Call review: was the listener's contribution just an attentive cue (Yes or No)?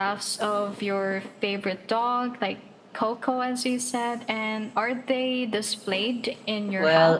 No